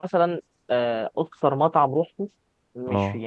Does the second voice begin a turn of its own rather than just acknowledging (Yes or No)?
No